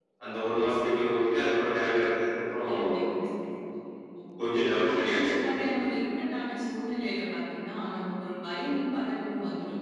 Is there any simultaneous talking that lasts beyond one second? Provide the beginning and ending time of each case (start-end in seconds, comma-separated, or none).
none